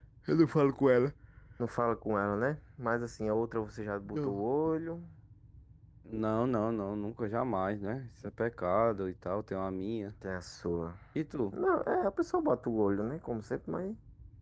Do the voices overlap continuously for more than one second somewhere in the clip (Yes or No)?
No